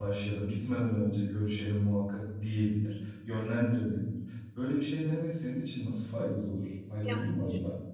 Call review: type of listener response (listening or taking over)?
taking over